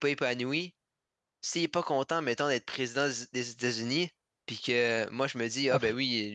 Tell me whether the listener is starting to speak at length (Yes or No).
No